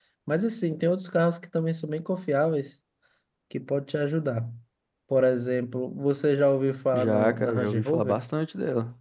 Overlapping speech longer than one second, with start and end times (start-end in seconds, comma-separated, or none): 6.9-8.2